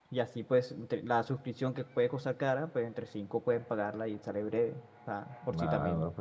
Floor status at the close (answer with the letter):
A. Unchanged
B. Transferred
B